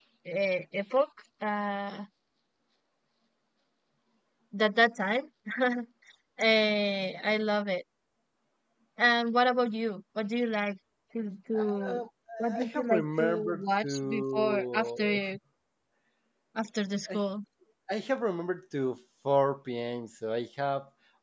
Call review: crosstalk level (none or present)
present